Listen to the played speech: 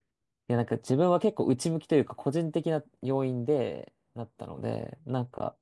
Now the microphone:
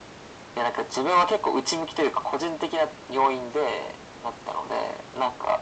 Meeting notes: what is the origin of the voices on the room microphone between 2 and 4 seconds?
echo only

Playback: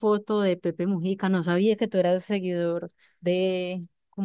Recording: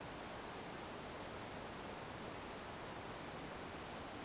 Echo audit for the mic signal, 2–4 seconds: neither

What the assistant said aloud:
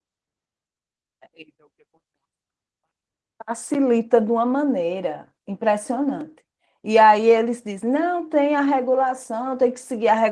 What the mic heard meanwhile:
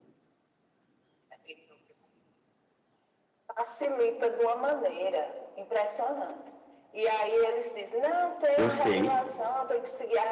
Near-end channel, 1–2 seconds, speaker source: neither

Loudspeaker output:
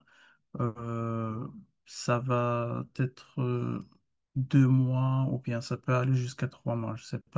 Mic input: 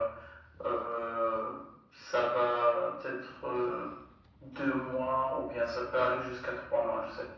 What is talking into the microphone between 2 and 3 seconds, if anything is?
echo only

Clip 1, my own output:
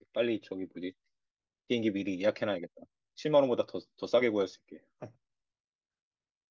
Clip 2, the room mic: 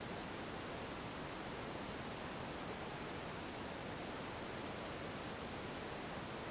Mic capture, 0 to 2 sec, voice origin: neither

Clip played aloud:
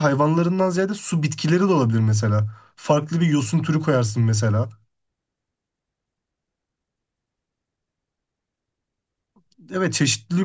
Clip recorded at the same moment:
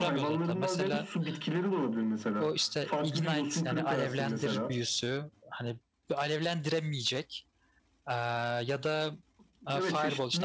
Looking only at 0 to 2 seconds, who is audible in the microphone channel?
both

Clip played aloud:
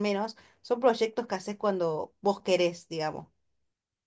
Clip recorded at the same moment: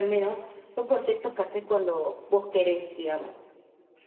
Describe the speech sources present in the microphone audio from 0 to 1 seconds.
echo only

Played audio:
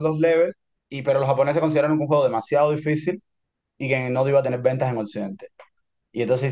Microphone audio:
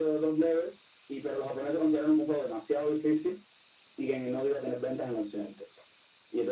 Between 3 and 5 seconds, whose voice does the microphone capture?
echo only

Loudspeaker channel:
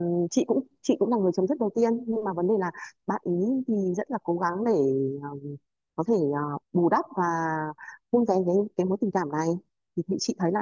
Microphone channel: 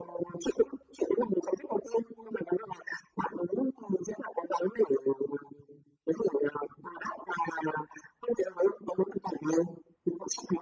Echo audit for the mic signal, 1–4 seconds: echo only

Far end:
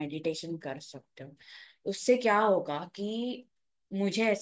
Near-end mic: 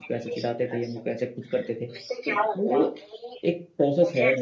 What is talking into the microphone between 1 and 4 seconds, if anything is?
both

